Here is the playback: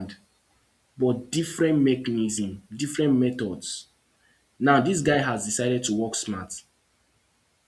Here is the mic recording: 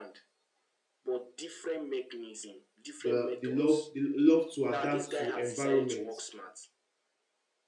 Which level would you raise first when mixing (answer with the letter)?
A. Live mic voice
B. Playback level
B